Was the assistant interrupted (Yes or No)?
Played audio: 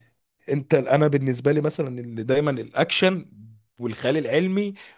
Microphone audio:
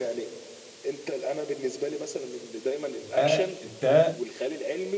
Yes